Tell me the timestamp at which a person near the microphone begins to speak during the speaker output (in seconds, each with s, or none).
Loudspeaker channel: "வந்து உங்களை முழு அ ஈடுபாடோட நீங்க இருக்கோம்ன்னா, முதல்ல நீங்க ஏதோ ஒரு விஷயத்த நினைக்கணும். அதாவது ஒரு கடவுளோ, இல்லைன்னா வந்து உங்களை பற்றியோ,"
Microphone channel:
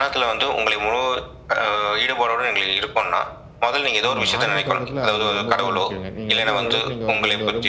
4.1 s